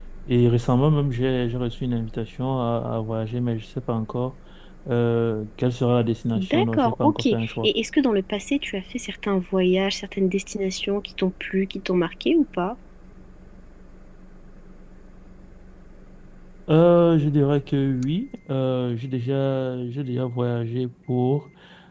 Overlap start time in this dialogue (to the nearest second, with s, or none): 6 s